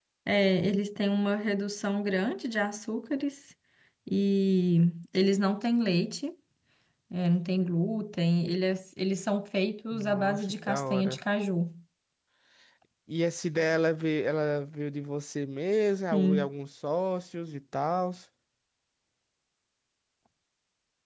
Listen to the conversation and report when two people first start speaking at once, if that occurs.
10 s

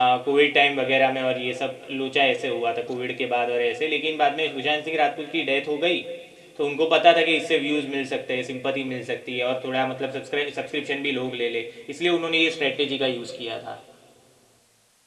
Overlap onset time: none

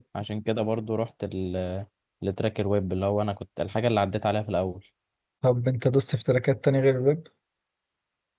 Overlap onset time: none

